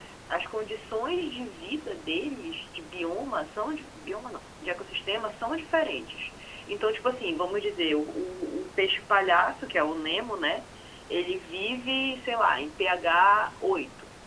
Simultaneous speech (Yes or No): No